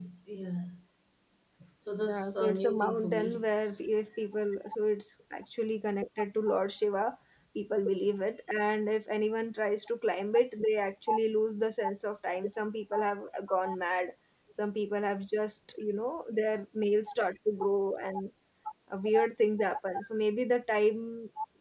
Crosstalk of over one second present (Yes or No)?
Yes